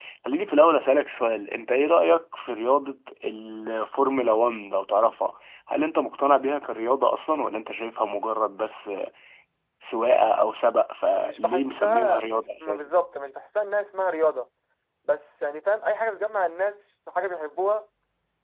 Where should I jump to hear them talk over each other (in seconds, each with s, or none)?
11.2 s